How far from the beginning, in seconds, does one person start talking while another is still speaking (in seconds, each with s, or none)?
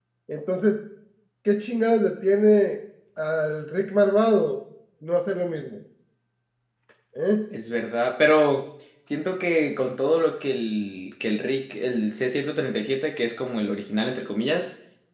none